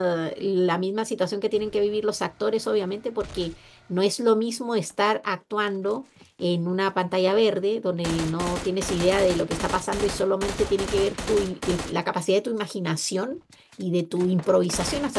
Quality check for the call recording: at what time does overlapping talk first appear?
none

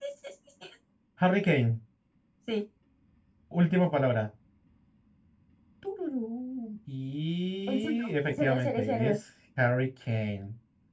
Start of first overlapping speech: 7.7 s

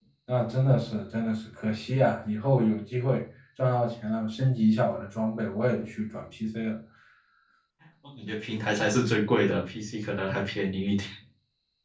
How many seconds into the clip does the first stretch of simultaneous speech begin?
none

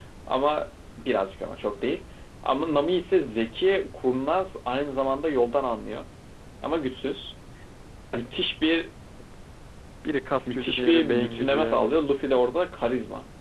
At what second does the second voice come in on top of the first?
10.5 s

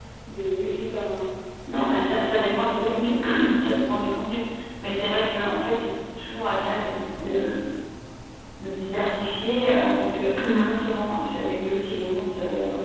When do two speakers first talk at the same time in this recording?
1.8 s

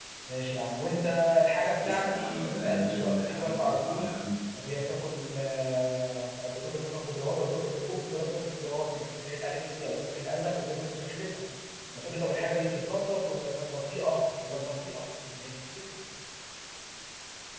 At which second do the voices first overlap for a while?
1.7 s

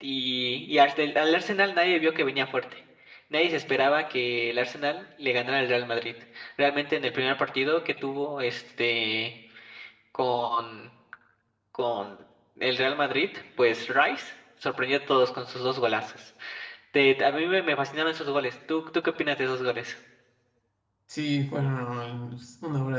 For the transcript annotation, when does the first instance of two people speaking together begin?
none

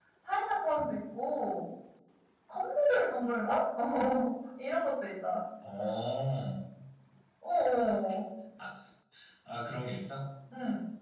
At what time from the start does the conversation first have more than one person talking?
none

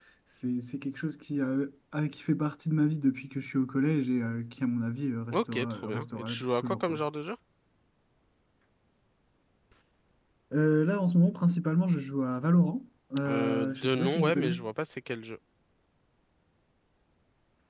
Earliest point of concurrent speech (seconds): 5.3 s

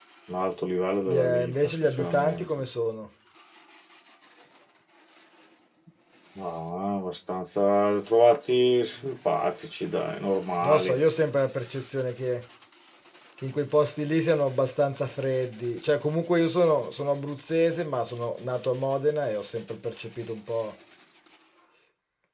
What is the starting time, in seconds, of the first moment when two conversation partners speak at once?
1.1 s

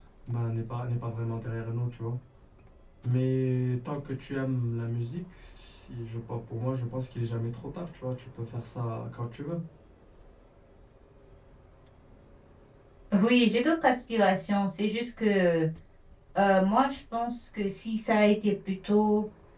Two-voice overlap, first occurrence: none

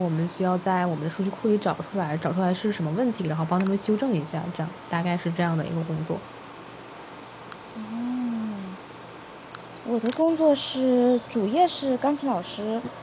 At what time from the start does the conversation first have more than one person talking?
none

